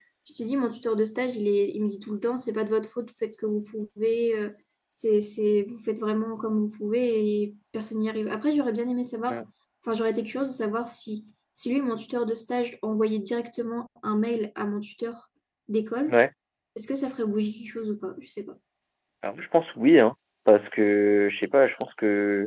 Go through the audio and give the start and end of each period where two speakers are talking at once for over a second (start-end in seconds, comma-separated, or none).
none